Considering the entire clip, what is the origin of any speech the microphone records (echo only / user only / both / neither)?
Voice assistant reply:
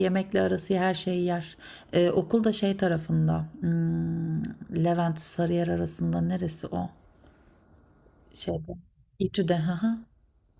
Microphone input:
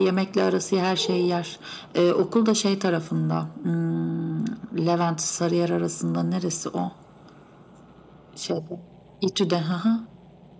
echo only